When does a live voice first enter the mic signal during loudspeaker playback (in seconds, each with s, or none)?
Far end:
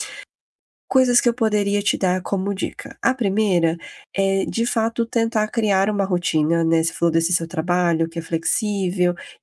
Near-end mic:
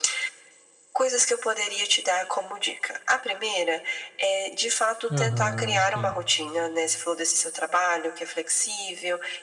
5.1 s